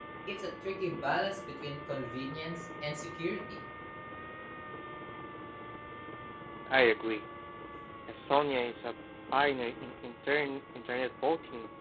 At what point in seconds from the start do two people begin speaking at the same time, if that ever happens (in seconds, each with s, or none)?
none